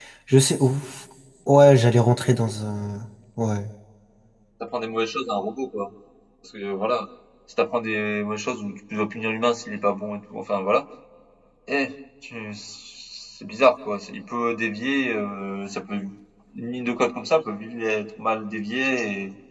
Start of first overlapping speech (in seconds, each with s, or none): none